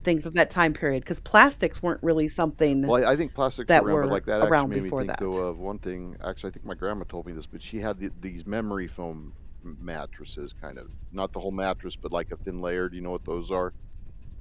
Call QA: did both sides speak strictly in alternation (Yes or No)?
No